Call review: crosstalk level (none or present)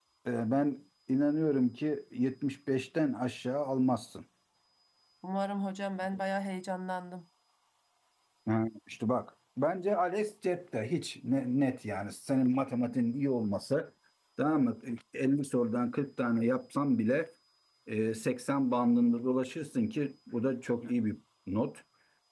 none